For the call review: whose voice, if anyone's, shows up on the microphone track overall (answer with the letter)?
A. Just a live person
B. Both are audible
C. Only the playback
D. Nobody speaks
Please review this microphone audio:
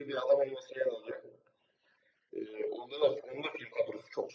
C